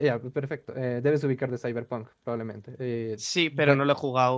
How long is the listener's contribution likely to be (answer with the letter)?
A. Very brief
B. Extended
B